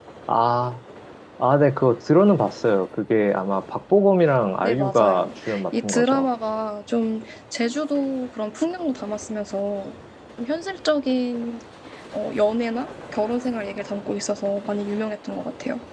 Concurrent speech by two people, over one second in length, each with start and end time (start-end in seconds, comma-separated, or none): 4.6-6.3